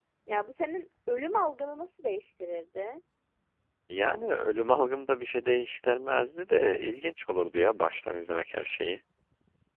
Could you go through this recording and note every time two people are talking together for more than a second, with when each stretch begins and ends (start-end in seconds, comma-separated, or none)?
none